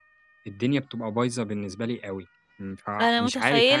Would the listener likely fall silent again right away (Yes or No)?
No